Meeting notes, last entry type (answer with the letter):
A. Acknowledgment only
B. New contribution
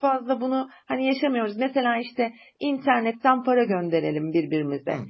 A